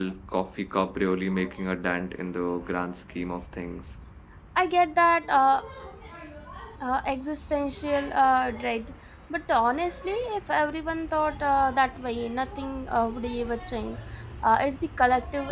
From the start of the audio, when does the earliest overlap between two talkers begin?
none

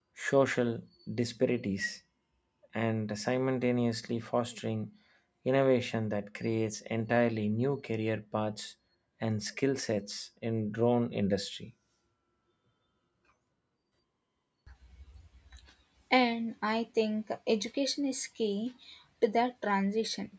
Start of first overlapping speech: none

